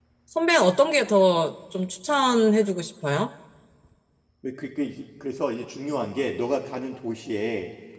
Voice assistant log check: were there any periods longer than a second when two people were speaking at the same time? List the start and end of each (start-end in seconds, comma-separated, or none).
none